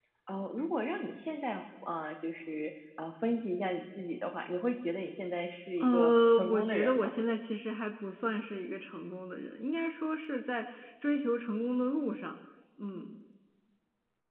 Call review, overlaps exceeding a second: present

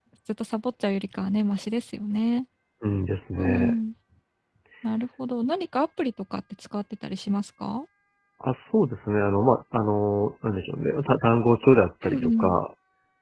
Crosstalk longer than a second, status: none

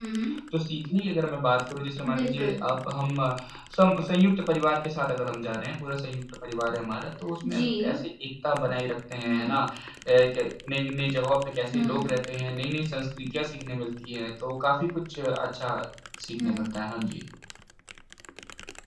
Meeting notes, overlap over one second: none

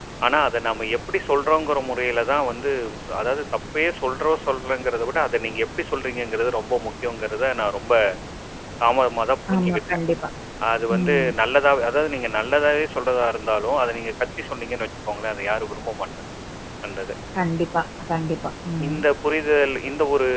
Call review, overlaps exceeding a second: none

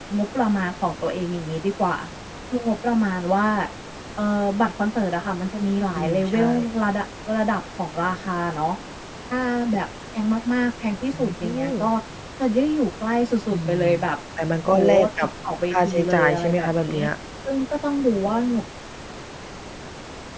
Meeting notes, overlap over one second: present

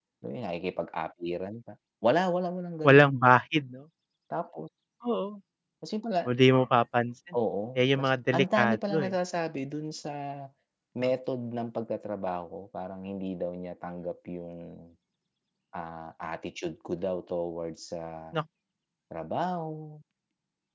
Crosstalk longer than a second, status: present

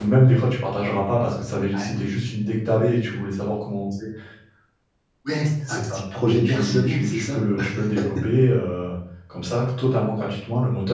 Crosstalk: present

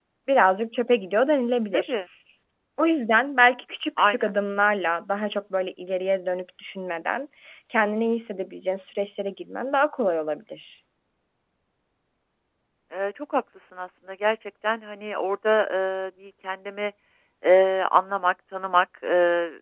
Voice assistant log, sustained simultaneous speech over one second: none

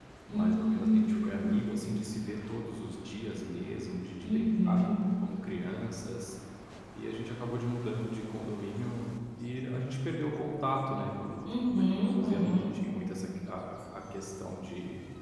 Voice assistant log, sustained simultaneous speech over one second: present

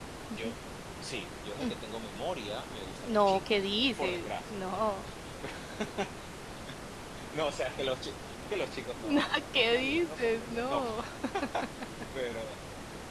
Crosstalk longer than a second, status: present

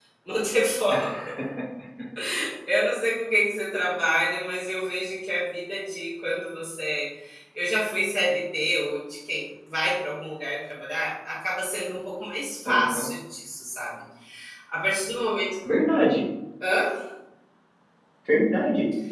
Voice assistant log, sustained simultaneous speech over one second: none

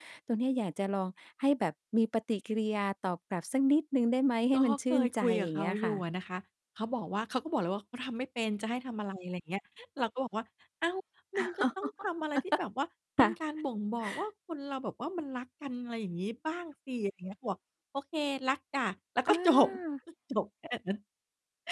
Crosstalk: present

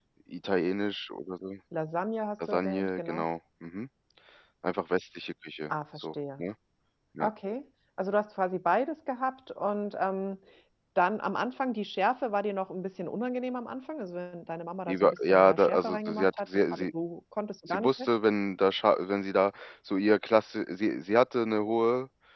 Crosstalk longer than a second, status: present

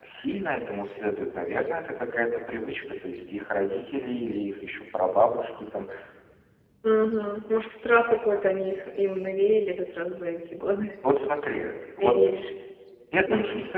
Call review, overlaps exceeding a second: none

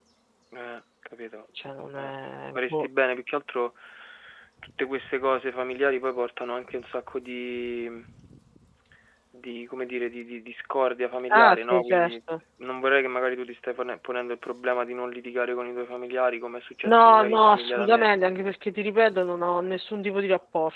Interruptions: present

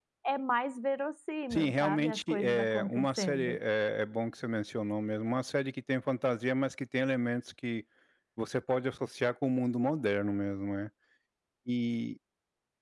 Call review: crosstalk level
present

